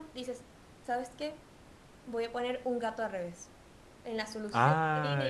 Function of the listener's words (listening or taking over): taking over